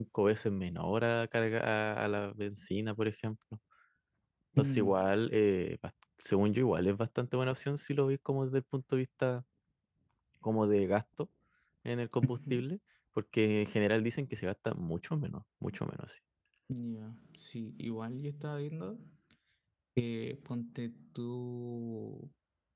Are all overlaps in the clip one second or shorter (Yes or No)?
Yes